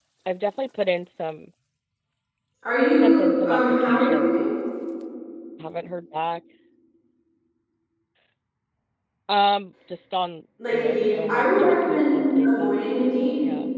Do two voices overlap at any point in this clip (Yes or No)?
Yes